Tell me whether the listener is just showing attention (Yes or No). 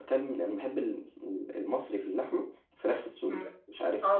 No